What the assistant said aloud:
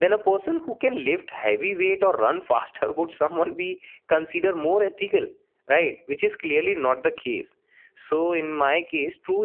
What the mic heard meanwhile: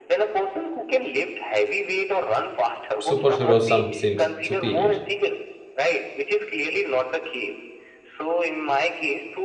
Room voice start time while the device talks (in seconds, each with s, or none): 3.0 s